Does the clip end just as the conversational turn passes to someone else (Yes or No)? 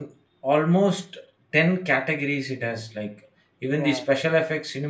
No